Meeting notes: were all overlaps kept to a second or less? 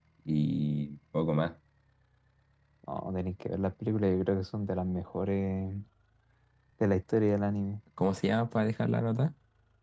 Yes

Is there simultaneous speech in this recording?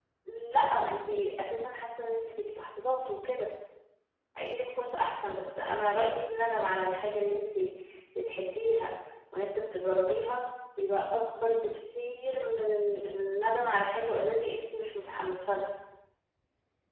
No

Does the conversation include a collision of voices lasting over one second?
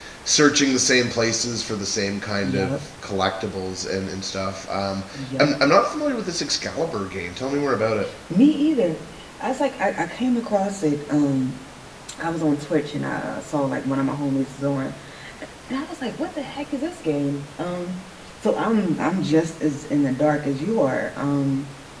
No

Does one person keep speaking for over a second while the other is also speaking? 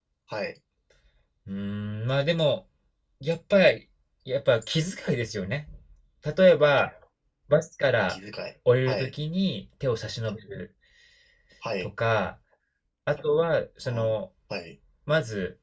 No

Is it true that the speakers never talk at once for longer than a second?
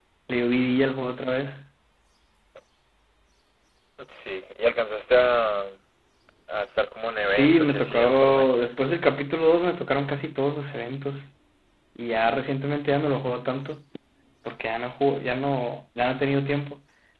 No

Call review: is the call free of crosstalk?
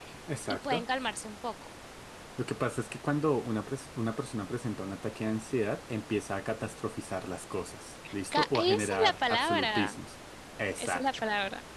No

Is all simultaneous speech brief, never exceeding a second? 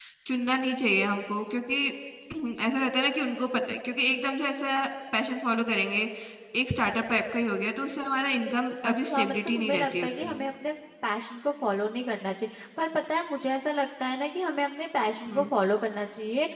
No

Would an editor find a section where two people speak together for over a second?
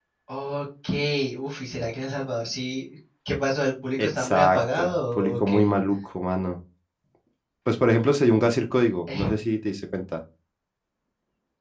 Yes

